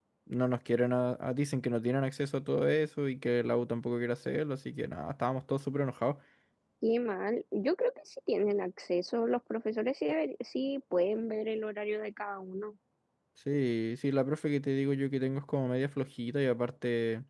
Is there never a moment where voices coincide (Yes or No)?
Yes